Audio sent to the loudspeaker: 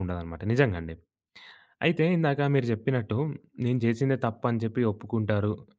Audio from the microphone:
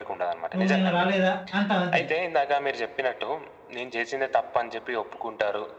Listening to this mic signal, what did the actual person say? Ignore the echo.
"నువ్వు నిన్న రాలేదా?" అంటాం అంతే.

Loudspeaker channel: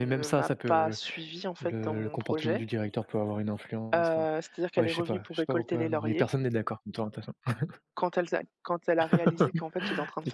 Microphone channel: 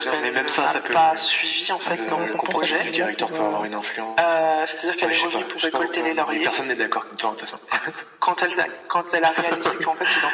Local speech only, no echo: a son importance à ce niveau-là pour, heu,

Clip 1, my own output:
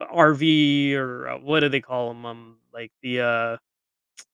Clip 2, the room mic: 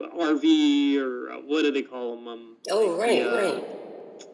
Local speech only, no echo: Oh, right, right,

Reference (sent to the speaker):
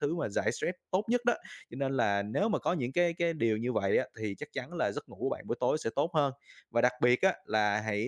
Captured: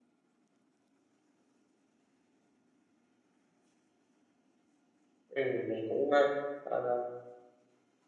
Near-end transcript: Ừm, mình cũng, ơ, ờ,

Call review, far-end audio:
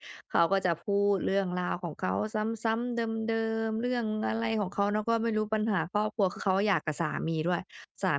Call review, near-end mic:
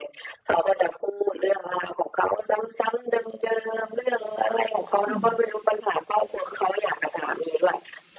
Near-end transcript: ค่ะ

